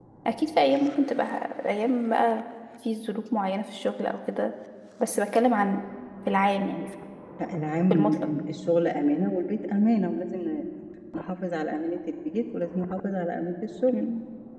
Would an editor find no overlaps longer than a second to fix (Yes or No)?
Yes